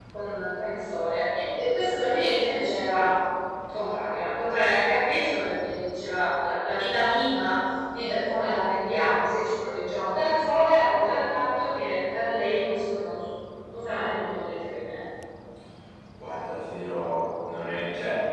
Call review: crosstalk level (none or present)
none